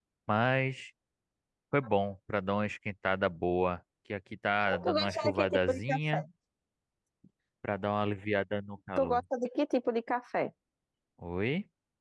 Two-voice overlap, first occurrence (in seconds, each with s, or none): 4.8 s